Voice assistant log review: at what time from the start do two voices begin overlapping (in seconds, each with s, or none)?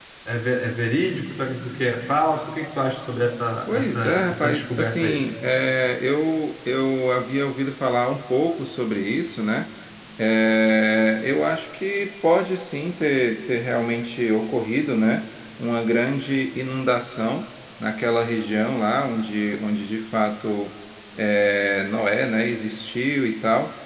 3.7 s